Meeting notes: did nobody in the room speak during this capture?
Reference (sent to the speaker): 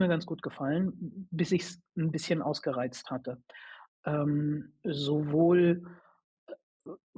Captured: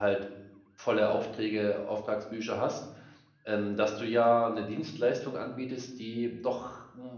No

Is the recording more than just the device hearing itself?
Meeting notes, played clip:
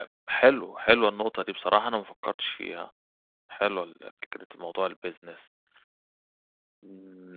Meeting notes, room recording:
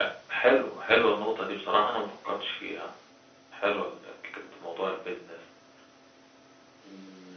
No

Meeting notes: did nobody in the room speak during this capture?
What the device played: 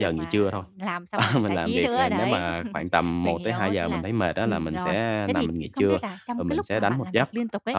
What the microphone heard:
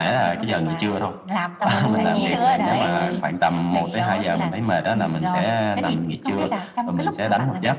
No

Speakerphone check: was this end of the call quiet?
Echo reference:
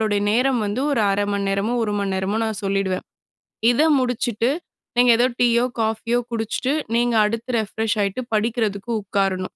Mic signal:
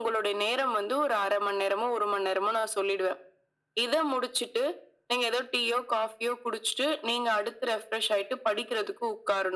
Yes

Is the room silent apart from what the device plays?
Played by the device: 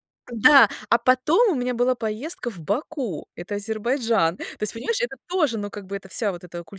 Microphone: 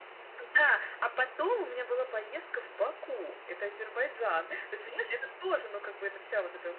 Yes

